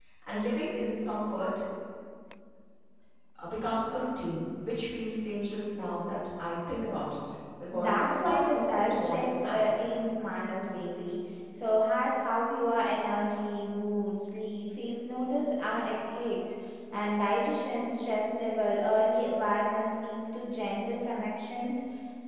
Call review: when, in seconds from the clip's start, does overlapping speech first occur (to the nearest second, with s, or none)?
8 s